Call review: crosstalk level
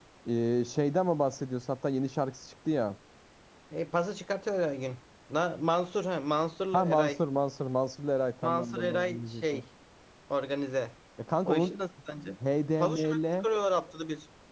present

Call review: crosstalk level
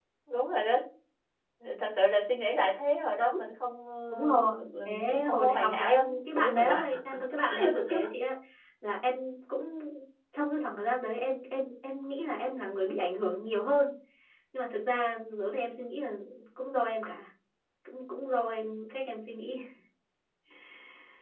present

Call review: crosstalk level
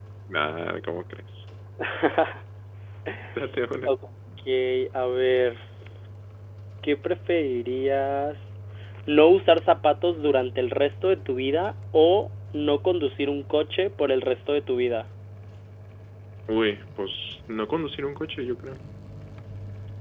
none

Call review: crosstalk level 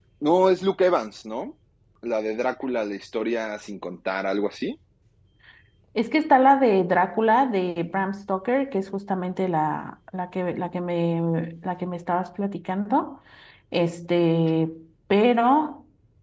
none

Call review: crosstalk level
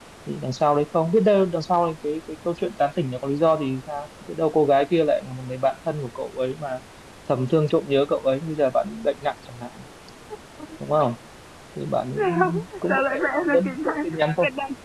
present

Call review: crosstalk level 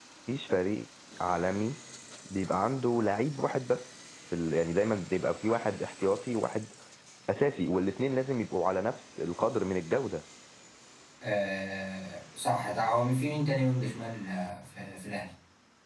none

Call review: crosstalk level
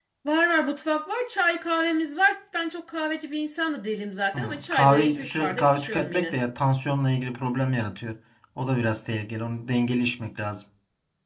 present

